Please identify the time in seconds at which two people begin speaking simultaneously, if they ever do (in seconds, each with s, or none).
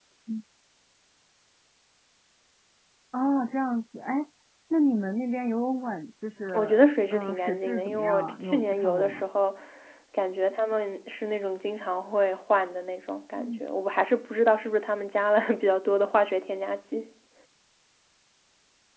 6.5 s